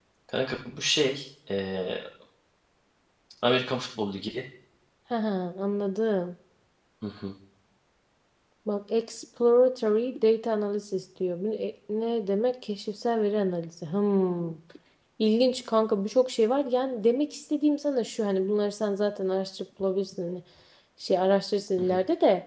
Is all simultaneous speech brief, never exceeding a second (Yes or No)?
Yes